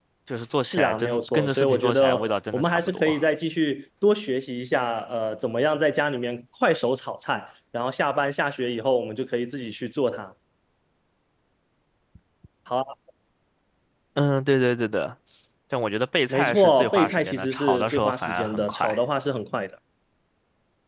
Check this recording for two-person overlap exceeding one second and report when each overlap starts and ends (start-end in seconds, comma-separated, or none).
0.6-3.2, 16.3-19.0